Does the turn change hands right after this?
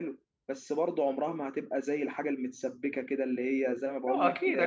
Yes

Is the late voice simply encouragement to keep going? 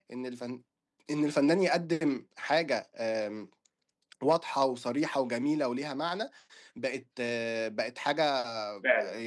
Yes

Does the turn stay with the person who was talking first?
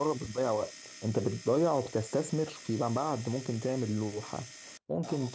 Yes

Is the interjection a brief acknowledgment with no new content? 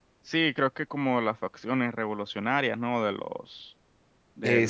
No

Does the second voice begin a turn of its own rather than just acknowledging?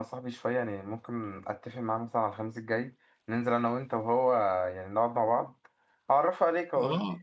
Yes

